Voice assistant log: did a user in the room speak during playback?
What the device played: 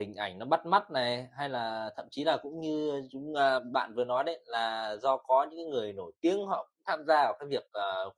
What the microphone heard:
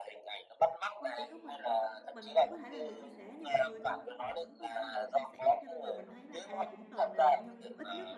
Yes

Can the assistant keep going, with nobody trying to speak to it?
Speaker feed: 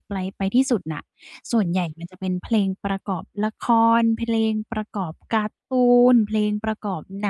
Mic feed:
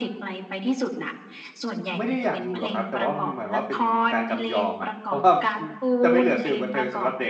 No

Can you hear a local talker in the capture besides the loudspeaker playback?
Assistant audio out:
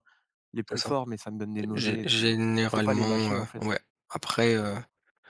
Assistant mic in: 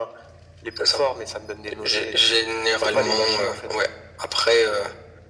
Yes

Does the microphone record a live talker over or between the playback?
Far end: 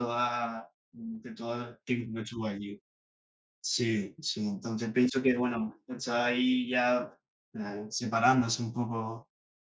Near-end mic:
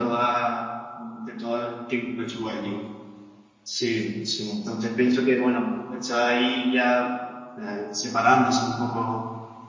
No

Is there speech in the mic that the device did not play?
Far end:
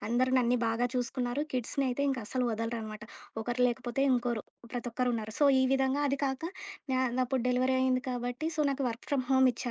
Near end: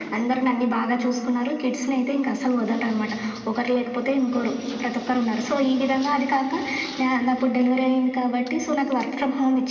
No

